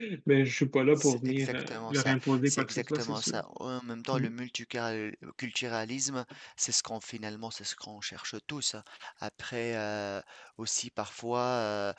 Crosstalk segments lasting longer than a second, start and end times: 1.0-3.4

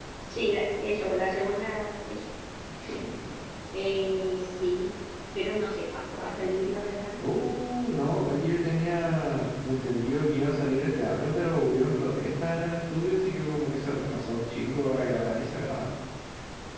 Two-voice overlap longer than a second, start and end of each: none

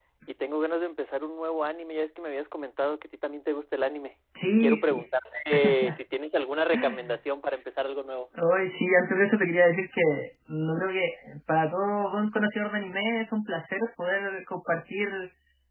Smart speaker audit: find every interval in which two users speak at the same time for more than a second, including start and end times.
none

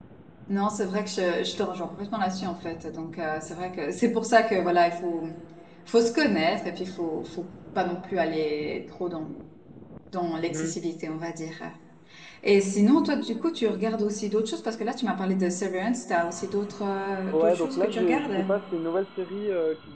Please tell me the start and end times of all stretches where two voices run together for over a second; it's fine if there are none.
17.3-18.5

